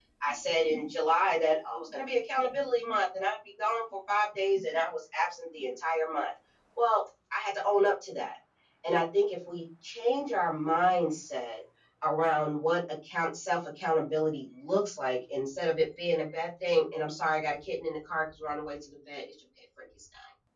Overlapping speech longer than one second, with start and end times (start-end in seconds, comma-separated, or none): none